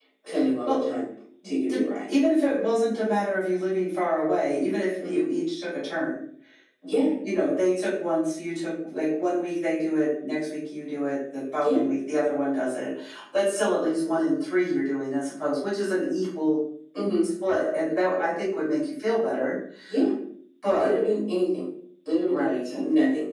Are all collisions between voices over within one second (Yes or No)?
Yes